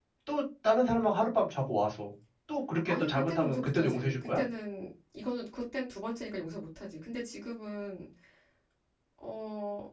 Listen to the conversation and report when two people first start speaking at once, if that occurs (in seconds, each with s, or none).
2.9 s